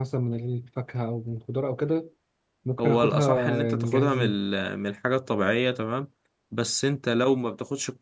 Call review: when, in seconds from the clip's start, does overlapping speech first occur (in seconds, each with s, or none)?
2.8 s